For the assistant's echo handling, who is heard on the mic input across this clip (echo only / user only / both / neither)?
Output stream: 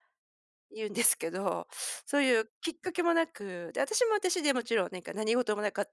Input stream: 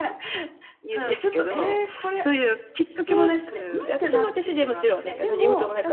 both